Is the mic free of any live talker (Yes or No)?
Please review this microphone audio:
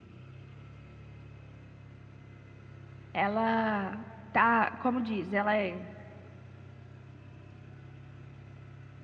No